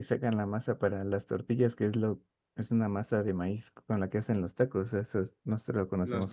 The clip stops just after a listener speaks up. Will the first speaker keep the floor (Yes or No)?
No